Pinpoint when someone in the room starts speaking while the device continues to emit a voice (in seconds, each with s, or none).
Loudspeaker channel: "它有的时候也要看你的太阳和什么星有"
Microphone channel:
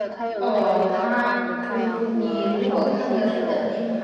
0.4 s